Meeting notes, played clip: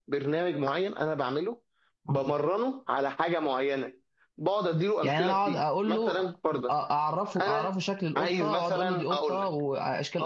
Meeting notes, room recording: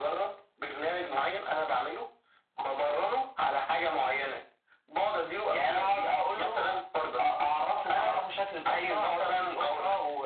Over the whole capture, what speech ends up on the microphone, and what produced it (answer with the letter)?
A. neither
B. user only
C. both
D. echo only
D